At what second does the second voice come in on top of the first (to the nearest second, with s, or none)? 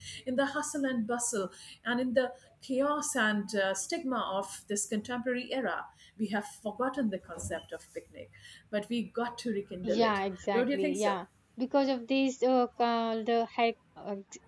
10 s